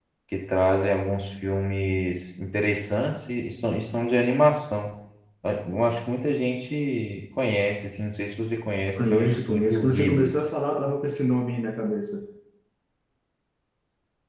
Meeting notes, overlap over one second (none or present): present